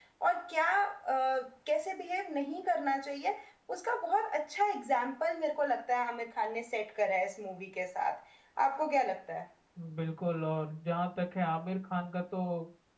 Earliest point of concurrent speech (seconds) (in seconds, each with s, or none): none